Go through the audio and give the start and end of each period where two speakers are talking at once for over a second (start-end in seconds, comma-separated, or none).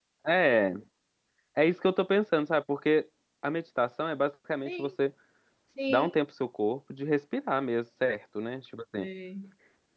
none